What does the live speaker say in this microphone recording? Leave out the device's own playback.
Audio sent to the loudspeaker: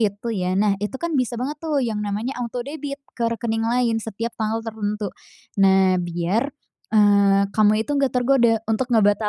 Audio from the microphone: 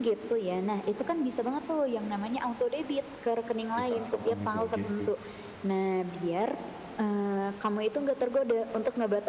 Sisa tabungan itu, gitu ya.

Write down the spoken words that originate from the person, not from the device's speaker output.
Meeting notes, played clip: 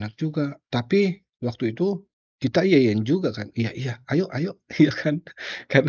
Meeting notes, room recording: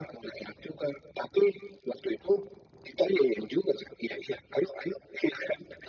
none

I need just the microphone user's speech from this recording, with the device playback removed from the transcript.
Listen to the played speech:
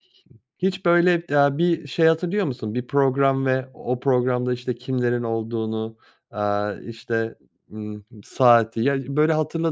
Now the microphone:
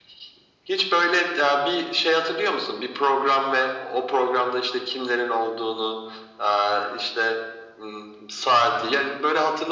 none

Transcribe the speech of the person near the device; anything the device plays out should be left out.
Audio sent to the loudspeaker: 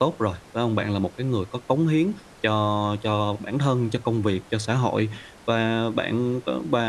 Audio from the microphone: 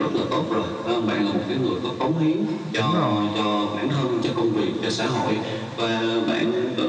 Đúng rồi.

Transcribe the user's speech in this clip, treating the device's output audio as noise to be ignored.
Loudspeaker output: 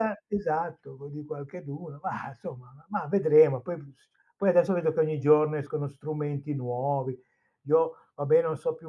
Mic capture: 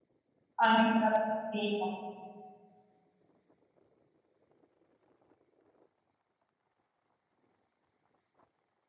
anche un ragazzino

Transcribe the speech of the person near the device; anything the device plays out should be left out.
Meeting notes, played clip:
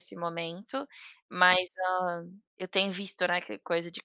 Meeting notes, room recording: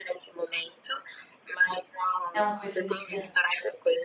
É uma coisa viciante.

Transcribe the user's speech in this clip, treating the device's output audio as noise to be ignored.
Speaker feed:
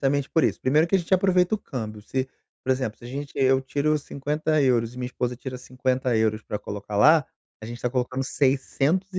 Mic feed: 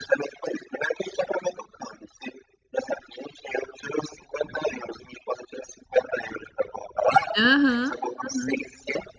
Aham, aham.

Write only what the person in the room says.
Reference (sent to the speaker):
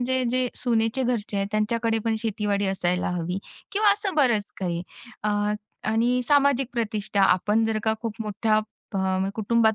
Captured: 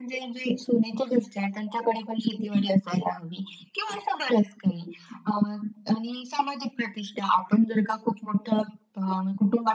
none

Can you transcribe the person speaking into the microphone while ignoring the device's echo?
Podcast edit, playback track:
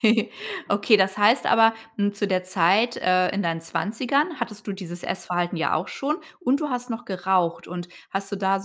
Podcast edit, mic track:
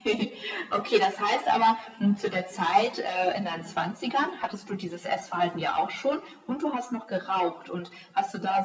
none

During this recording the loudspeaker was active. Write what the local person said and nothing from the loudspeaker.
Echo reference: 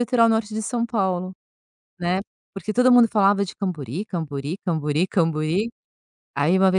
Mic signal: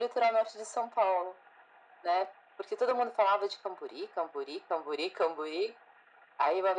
none

